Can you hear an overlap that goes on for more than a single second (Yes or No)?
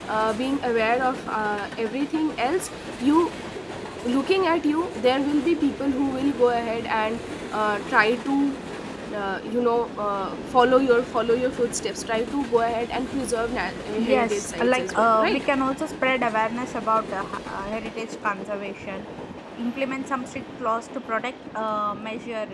Yes